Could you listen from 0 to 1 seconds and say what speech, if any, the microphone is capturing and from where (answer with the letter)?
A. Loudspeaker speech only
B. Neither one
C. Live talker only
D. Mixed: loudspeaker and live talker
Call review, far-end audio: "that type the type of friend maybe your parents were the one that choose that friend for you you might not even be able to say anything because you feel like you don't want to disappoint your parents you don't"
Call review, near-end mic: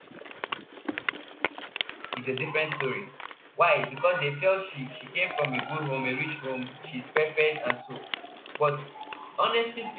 B